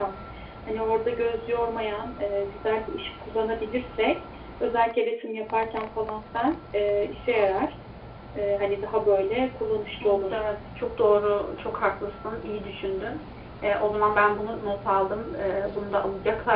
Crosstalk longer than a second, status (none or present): none